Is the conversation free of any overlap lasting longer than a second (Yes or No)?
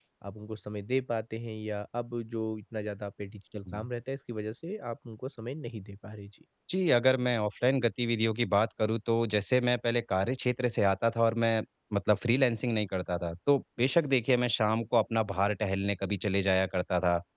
Yes